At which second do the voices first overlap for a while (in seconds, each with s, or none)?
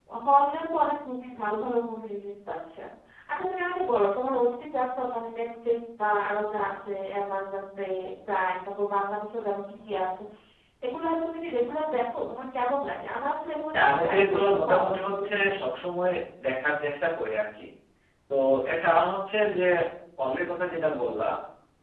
13.7 s